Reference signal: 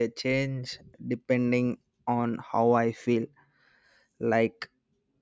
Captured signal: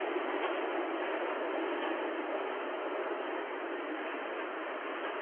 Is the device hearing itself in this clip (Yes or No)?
No